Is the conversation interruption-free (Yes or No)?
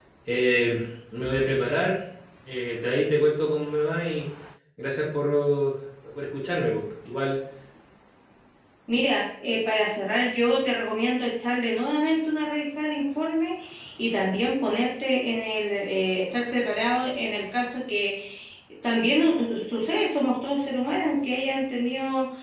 Yes